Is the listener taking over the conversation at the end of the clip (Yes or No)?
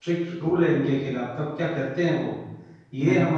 No